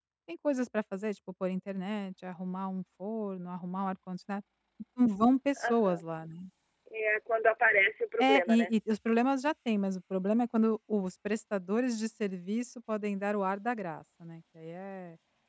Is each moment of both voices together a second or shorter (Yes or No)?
Yes